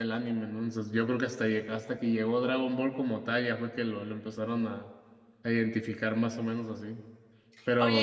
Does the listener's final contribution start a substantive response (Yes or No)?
Yes